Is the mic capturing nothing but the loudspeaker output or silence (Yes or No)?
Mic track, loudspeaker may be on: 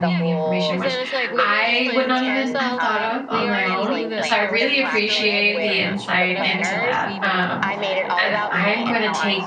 No